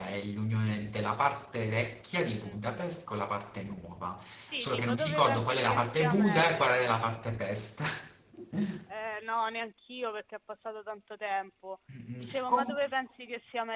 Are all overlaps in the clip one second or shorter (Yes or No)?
No